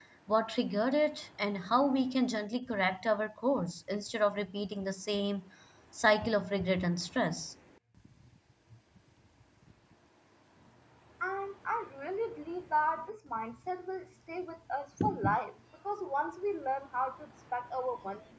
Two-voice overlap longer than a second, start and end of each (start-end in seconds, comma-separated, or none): none